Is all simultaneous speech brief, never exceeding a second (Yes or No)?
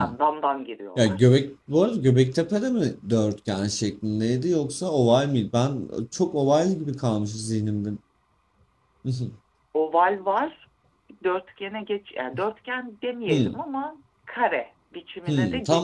Yes